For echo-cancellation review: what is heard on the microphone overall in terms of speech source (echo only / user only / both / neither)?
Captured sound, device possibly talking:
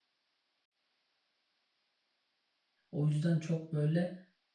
user only